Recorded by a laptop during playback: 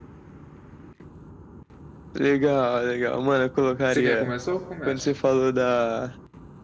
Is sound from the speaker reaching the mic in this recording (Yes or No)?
Yes